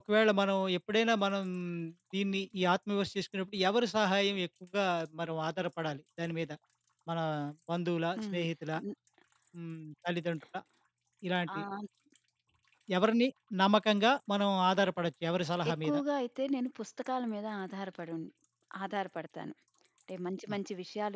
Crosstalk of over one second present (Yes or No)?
No